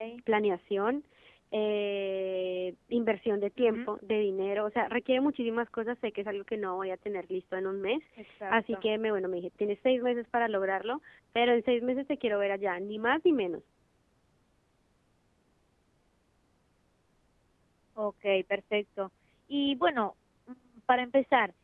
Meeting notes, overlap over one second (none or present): none